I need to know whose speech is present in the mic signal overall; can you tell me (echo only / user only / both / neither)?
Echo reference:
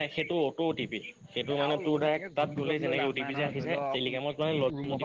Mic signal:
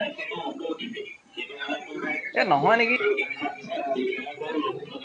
both